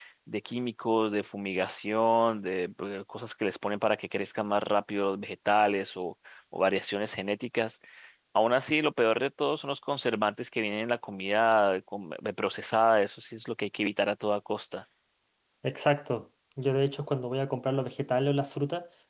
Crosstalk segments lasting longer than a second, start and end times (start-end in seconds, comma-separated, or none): none